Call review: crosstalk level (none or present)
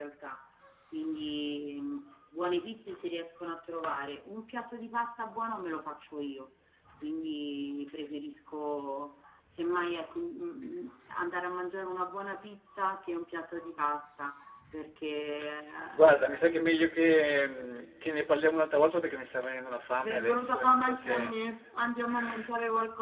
present